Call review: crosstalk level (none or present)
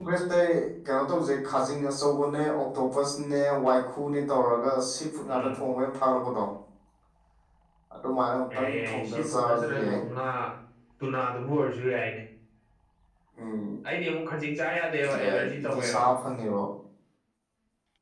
present